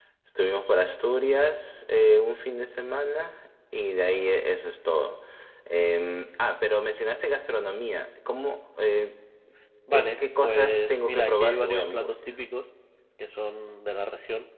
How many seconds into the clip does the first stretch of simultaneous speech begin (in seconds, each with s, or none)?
9.9 s